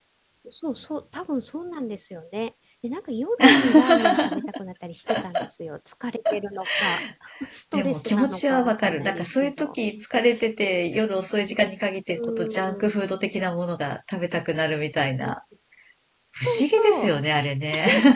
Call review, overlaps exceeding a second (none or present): present